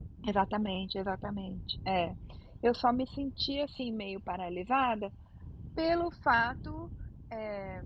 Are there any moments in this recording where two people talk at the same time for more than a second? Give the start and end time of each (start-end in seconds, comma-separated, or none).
none